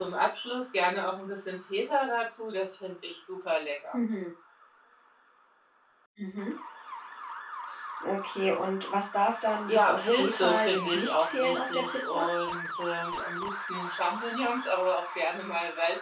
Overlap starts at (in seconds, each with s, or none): 9.7 s